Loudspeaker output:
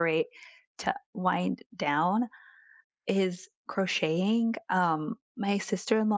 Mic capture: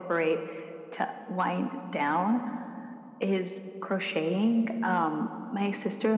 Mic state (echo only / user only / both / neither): echo only